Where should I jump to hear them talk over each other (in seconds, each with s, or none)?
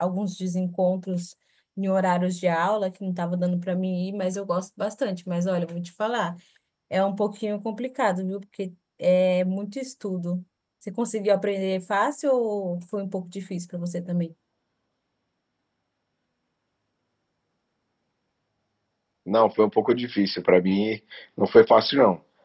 none